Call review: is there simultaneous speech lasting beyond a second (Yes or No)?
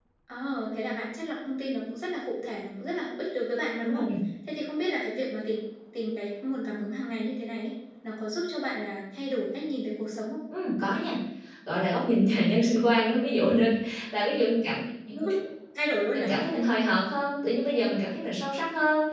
No